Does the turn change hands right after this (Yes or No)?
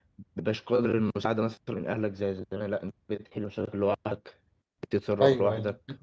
Yes